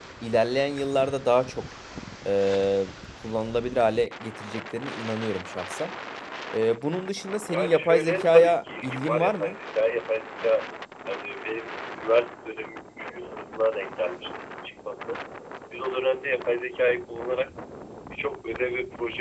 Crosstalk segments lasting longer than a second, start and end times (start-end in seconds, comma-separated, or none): 7.5-9.6